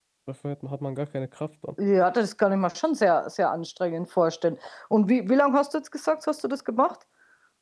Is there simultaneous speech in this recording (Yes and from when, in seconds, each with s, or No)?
No